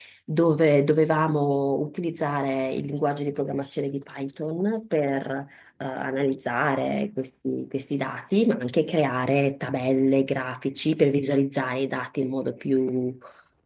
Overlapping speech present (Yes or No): No